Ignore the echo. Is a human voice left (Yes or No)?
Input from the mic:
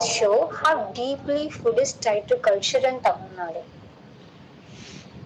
No